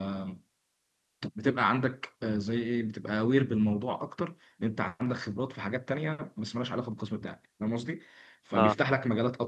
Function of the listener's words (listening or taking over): listening